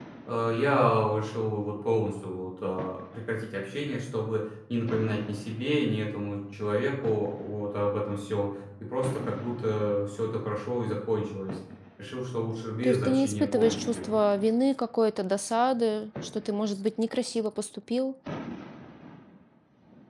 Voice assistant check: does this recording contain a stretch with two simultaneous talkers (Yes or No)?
Yes